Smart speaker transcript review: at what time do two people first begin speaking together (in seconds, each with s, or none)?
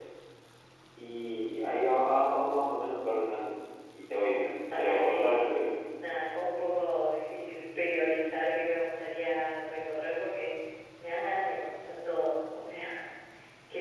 4.3 s